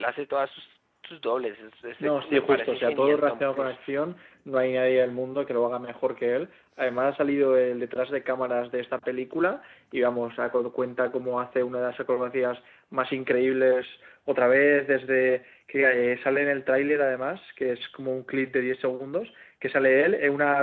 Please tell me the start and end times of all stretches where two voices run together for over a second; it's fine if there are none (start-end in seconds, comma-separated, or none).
2.0-3.8